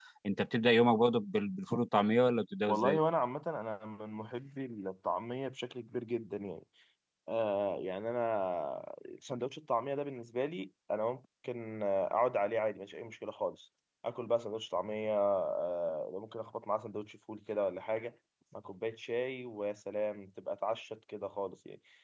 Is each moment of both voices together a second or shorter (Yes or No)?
Yes